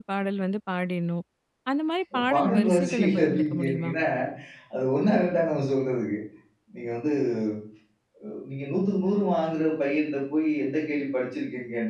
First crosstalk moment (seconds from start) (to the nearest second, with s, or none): 2 s